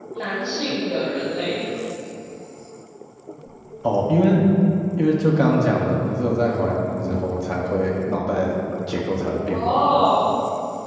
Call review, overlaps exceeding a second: none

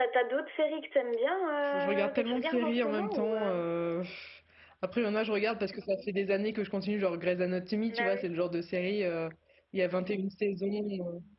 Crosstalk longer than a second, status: present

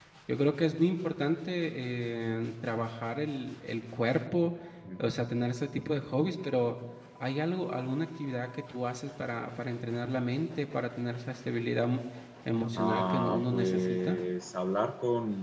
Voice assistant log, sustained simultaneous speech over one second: present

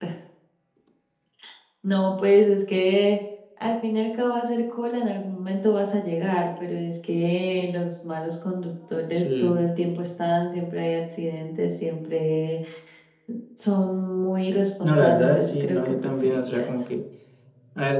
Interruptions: present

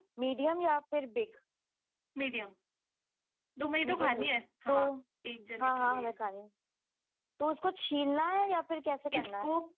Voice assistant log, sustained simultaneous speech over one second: none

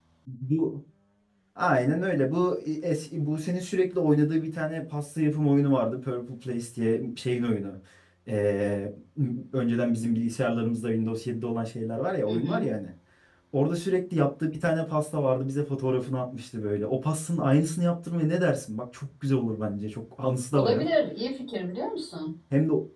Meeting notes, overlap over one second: none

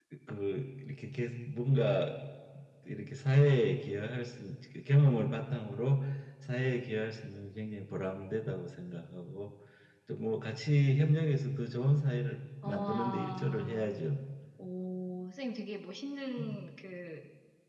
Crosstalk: present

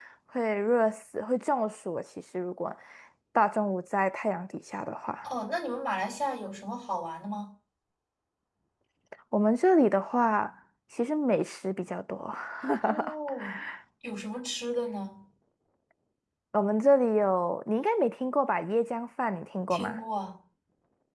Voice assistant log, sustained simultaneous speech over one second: none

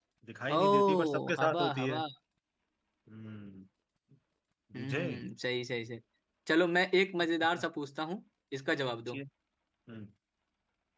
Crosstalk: present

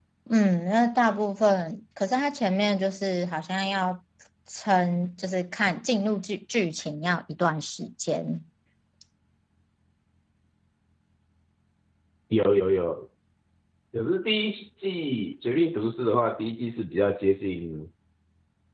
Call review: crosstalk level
none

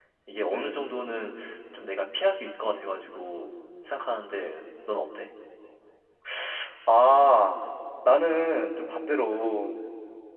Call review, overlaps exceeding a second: none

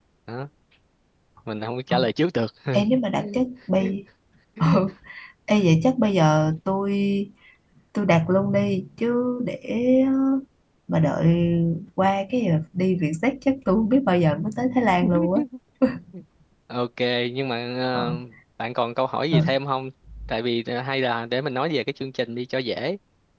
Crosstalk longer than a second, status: none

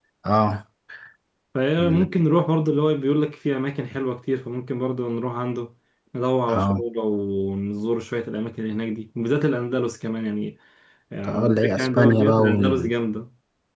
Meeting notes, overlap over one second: present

